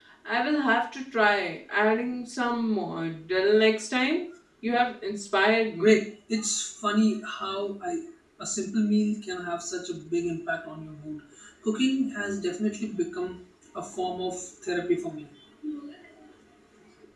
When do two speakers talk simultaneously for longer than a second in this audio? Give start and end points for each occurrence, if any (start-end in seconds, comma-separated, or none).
none